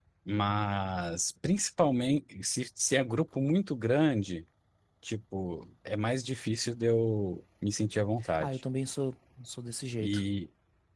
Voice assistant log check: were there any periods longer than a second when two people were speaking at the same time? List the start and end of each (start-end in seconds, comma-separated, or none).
none